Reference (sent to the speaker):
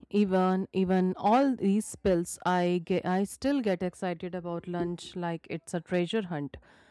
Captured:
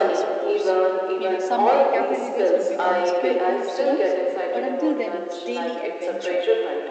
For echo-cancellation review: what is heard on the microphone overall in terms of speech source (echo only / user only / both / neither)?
both